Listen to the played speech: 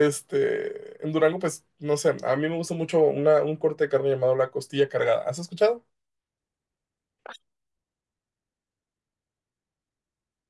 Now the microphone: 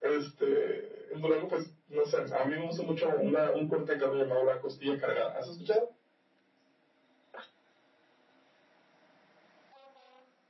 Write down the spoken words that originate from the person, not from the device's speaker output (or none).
none